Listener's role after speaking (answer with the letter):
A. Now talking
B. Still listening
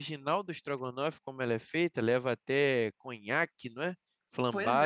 A